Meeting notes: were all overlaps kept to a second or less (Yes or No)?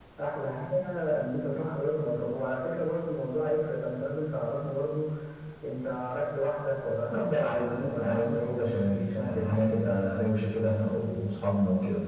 No